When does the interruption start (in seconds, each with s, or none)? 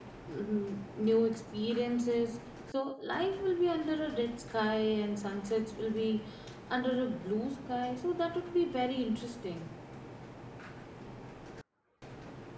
none